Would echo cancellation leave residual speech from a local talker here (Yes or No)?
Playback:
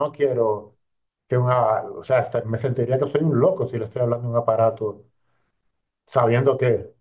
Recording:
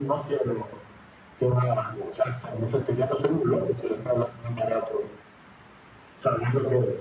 No